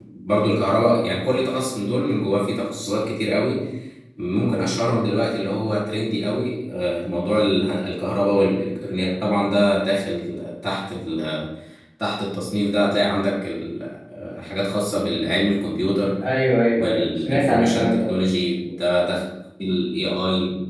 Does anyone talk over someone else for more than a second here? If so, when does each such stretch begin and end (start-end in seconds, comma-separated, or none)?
16.7-18.1